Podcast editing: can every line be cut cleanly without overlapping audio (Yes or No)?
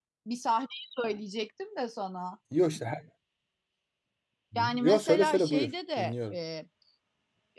No